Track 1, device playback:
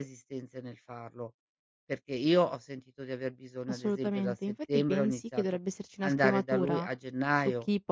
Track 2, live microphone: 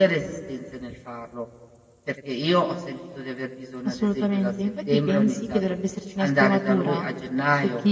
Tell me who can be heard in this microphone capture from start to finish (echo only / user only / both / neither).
echo only